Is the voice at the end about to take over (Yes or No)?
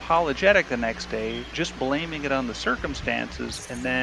No